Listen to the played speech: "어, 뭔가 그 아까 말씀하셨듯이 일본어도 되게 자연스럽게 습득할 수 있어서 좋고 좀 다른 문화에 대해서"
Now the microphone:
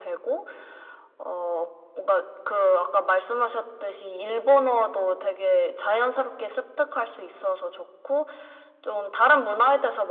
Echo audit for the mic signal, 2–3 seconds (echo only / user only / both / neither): echo only